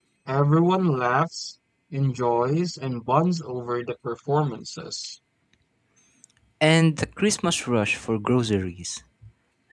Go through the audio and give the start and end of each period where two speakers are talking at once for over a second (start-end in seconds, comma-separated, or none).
none